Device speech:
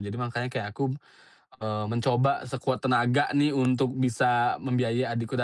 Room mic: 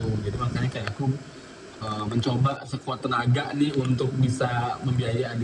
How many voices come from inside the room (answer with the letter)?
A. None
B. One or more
A